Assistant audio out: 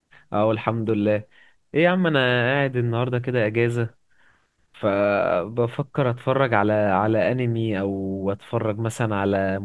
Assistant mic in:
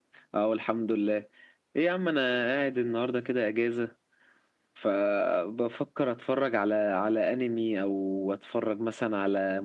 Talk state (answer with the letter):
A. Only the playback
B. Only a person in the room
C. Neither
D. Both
A